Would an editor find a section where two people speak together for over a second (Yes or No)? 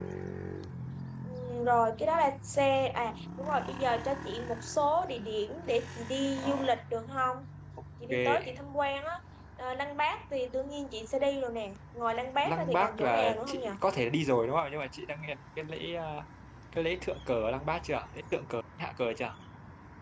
Yes